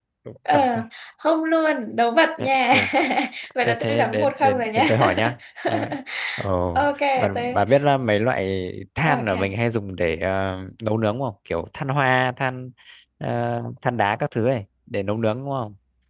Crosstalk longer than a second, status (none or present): present